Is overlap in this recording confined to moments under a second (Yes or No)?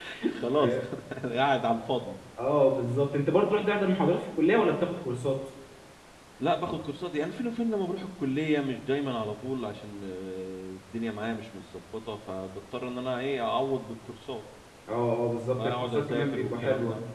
No